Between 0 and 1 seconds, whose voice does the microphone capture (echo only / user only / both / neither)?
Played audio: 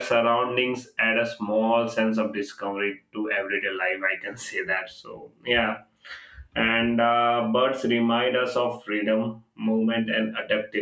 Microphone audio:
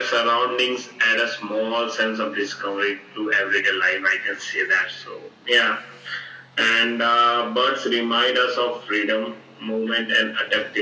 echo only